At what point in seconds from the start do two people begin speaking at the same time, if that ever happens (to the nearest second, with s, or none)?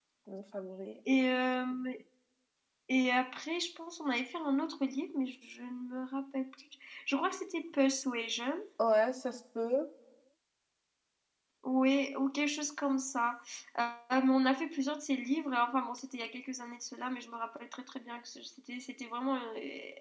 none